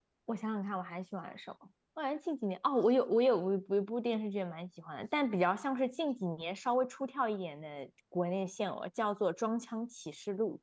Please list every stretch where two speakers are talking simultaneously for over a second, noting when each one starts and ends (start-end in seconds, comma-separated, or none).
none